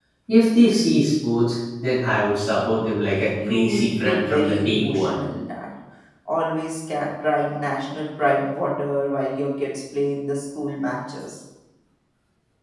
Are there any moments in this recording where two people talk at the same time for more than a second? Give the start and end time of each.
3.5-5.2

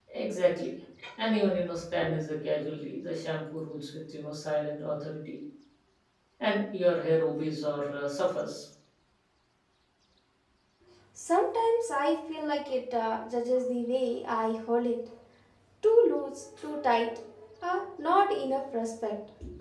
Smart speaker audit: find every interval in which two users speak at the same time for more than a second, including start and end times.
none

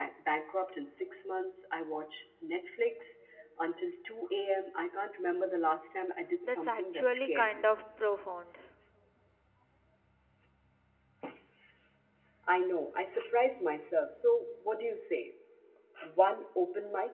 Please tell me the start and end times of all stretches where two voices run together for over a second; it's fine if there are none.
6.5-7.7

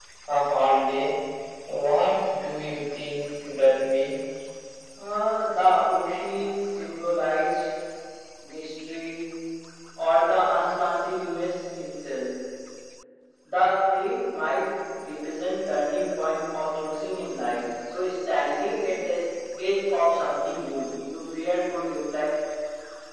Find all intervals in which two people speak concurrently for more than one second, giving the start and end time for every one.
none

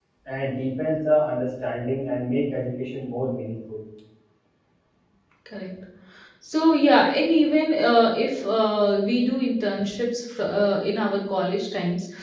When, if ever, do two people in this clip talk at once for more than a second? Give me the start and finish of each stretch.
none

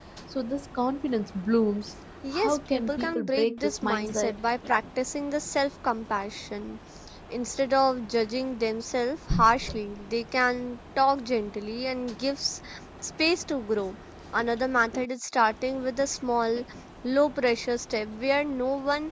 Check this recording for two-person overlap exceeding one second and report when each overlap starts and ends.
2.4-4.3

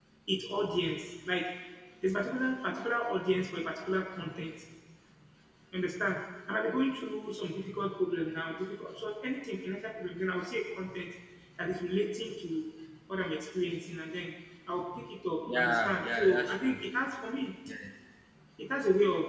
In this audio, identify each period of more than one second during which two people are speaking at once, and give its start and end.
15.4-16.8

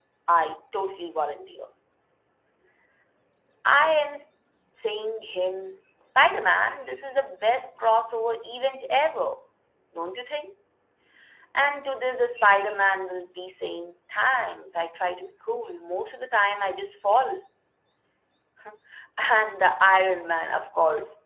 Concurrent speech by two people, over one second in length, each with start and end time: none

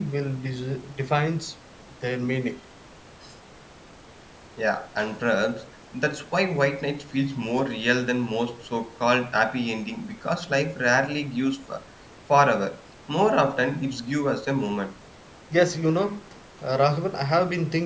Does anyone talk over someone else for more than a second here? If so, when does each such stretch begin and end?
none

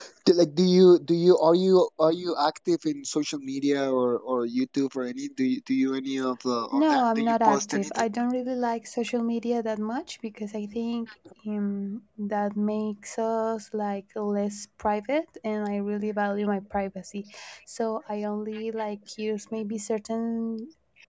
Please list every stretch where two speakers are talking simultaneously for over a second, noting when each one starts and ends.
6.7-8.0

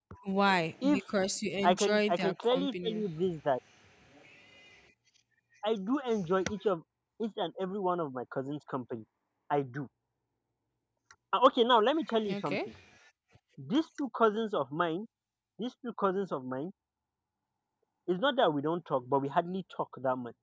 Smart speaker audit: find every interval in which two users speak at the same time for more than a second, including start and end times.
1.6-3.1

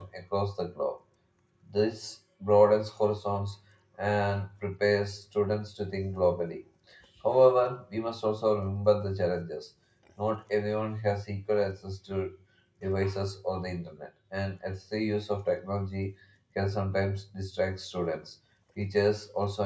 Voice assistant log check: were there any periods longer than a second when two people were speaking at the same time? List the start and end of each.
none

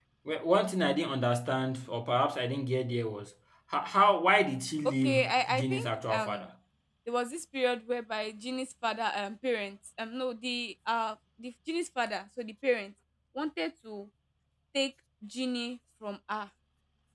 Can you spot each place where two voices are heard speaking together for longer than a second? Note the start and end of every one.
4.8-6.4

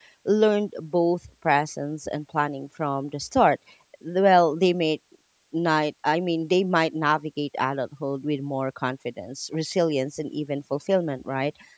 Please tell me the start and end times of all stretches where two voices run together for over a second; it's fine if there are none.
none

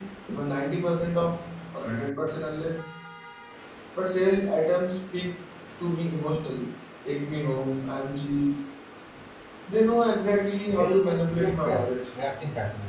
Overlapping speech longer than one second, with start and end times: 10.7-11.9

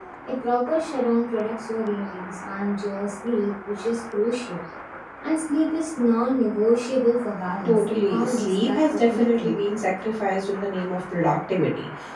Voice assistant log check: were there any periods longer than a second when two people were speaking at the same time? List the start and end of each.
7.6-9.6

